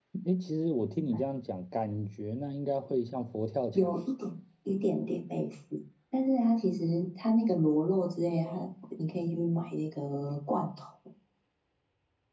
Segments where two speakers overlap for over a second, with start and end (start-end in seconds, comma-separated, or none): none